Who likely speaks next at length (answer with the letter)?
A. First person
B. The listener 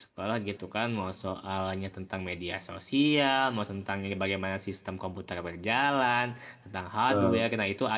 A